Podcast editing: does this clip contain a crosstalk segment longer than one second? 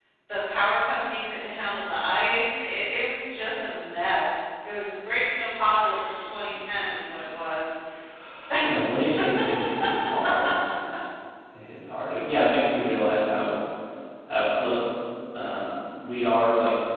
No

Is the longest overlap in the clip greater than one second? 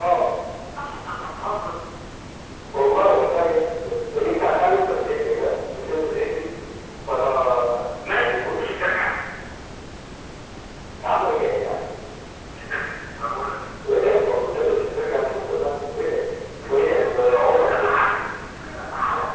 Yes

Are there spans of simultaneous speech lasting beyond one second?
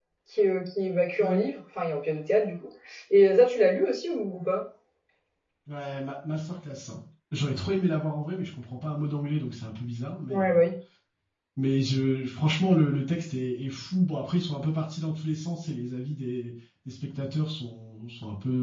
No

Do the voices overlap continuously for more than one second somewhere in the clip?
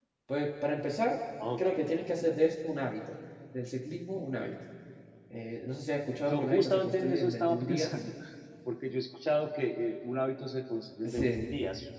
Yes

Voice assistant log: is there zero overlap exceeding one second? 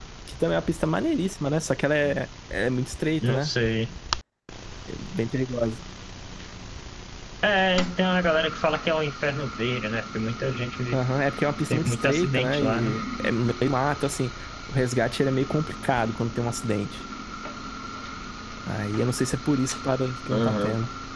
No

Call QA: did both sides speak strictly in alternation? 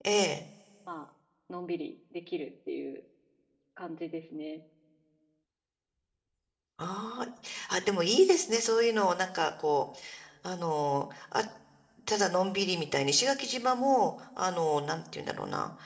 Yes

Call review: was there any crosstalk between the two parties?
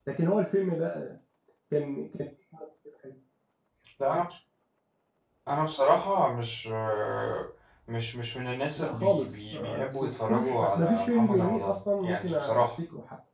Yes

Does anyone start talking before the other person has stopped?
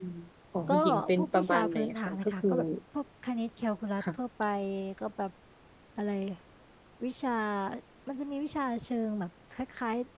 Yes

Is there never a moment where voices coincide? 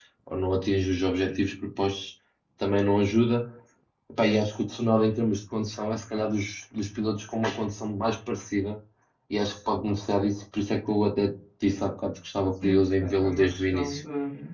No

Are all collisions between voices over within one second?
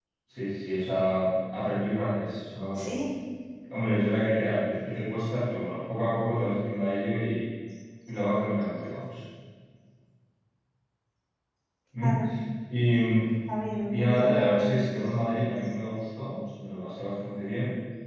No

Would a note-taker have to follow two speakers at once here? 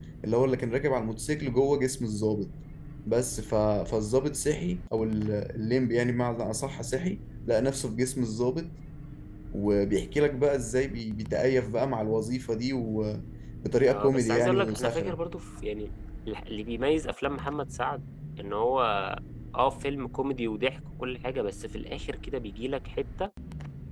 Yes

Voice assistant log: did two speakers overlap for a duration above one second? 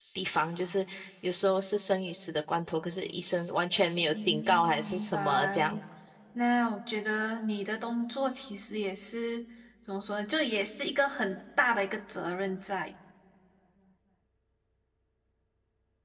Yes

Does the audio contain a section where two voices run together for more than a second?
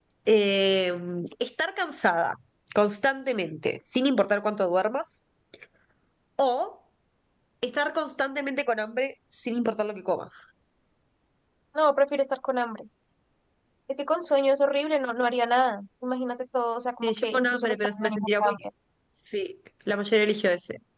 Yes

